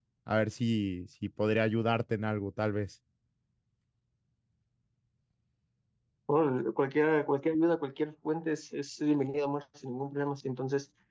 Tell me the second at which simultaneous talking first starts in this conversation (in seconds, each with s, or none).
none